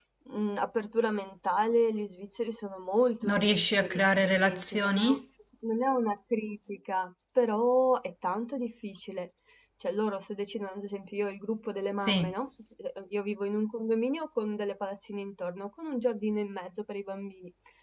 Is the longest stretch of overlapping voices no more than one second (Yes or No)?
No